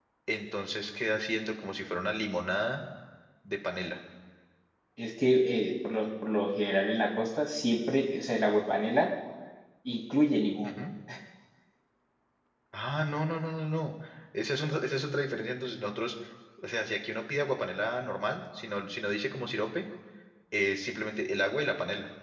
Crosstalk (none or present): none